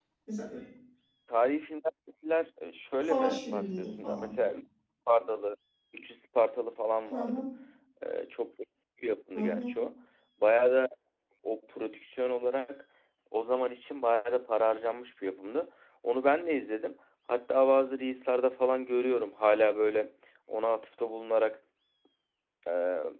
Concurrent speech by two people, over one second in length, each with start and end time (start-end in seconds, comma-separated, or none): 3.1-4.4